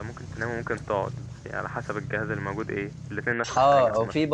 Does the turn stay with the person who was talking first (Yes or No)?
No